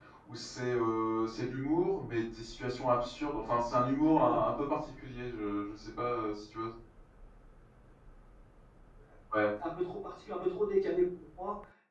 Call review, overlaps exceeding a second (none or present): none